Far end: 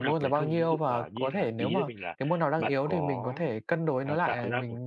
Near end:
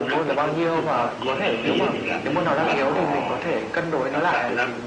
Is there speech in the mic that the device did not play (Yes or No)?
Yes